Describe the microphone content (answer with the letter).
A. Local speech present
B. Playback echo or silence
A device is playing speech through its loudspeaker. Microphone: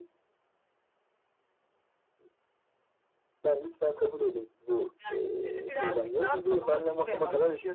B